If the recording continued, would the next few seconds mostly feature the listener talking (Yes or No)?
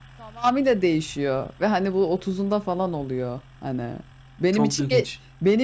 No